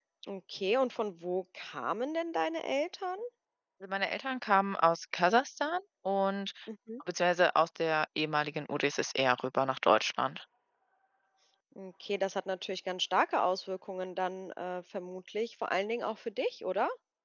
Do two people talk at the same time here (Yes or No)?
No